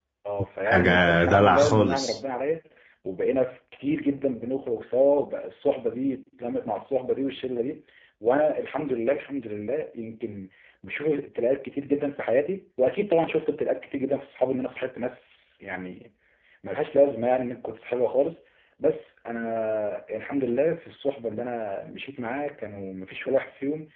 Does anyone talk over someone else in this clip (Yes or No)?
Yes